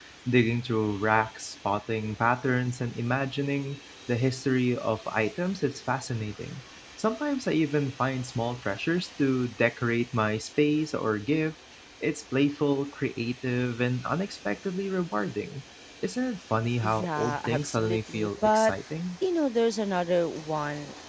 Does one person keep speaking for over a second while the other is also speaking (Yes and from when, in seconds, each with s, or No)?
Yes, from 16.8 s